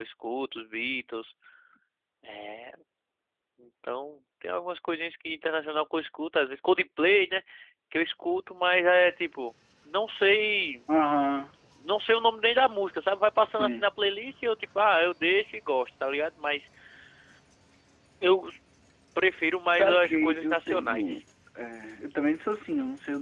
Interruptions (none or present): present